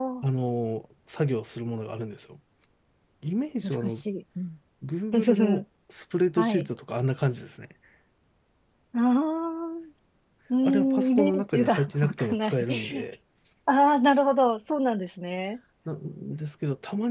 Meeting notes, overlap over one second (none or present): present